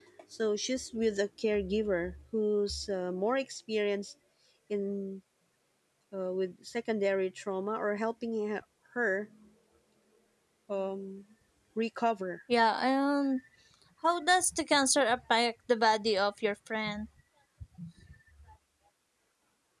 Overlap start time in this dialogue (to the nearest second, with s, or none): none